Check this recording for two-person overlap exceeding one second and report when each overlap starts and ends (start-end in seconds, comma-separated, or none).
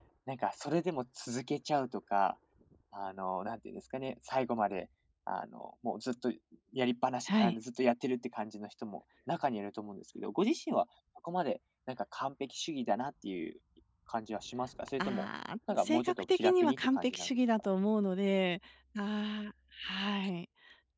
15.7-17.7